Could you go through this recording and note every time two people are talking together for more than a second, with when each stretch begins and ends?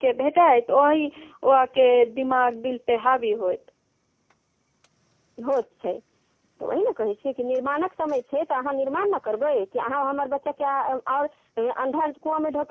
none

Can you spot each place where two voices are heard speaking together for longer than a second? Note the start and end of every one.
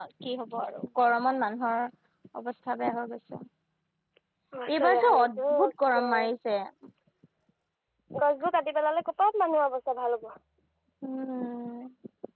4.8-6.1

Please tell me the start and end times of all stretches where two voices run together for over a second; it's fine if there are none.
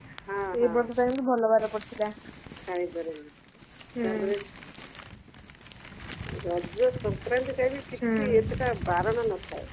none

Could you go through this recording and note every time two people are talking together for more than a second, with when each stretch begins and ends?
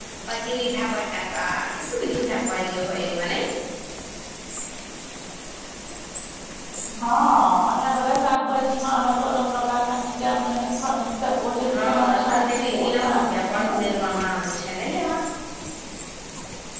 11.7-13.7

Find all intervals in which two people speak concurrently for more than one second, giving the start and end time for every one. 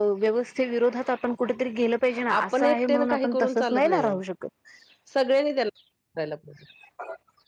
2.4-4.2

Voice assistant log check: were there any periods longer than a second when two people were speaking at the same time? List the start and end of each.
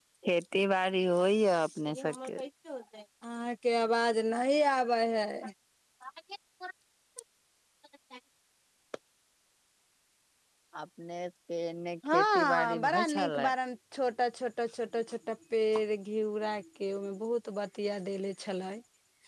12.1-13.5

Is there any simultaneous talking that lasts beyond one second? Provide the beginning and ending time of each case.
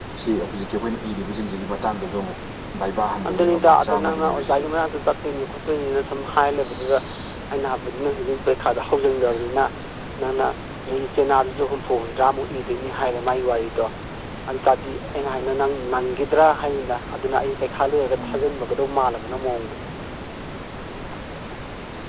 3.3-4.6

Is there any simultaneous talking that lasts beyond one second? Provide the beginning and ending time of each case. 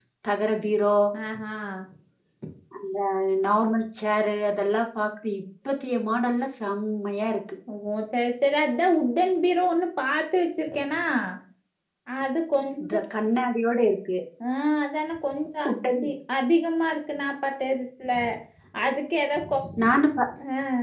none

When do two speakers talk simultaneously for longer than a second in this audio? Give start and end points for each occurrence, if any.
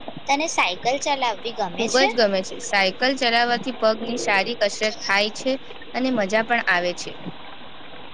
none

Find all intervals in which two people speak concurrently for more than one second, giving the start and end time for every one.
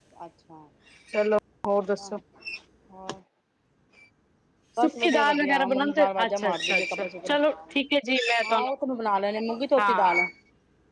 4.8-7.5

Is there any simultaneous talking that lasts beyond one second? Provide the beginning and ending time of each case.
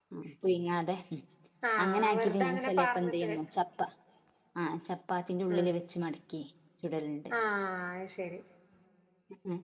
1.8-3.3

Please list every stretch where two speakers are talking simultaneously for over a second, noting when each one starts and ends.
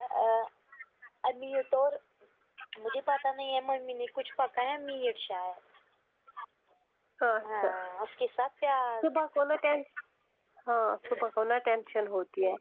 none

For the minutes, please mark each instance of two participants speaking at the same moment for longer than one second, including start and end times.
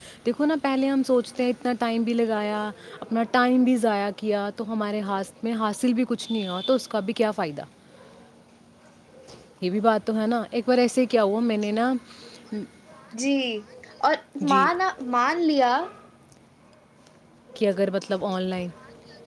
none

